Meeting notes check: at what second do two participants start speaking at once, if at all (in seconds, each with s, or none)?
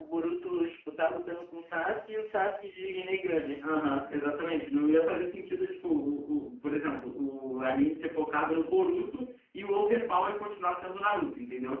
none